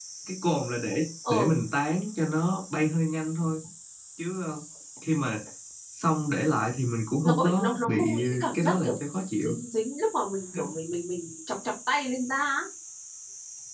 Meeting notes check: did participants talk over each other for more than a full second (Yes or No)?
Yes